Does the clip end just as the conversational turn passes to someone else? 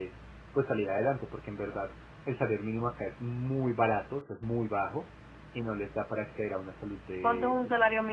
Yes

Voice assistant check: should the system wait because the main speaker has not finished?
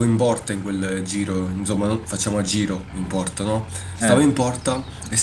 Yes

